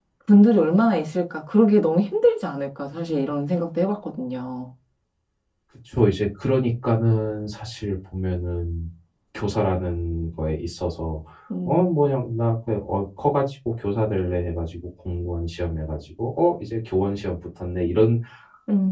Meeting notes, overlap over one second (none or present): none